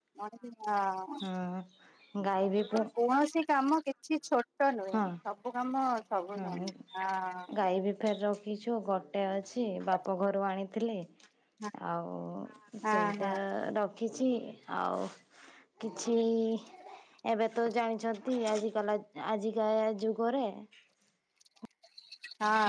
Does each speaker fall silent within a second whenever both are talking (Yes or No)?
Yes